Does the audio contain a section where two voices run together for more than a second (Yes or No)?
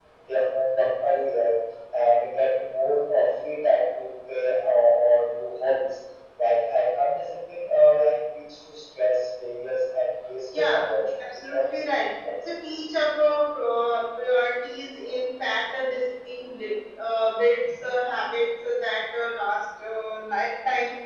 Yes